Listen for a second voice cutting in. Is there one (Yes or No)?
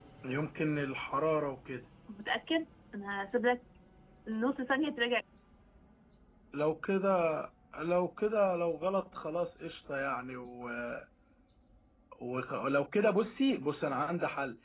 No